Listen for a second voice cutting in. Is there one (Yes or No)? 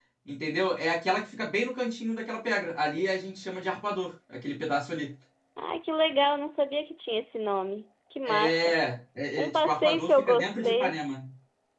Yes